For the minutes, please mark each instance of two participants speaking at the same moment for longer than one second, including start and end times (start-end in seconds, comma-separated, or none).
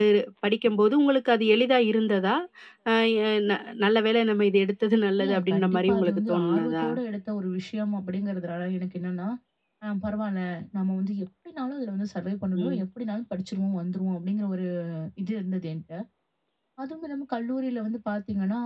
5.2-6.9